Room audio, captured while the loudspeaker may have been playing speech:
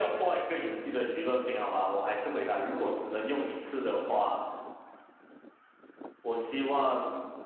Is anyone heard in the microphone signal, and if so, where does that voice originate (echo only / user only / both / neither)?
echo only